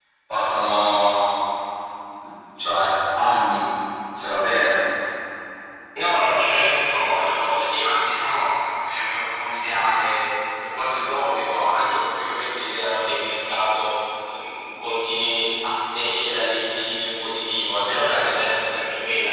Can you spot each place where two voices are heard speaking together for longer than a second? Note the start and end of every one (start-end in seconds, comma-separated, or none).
none